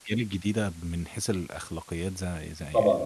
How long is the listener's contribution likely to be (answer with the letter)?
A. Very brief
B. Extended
B